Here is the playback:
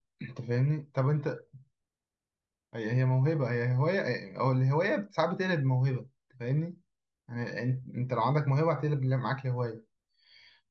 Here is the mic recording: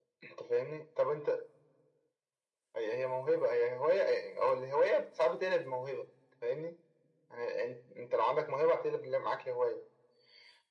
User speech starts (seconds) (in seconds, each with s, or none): none